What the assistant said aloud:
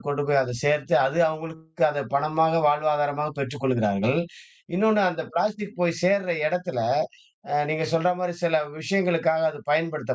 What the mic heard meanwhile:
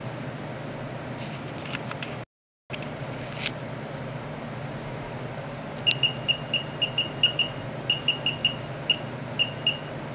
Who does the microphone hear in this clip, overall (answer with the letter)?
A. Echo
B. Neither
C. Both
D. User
B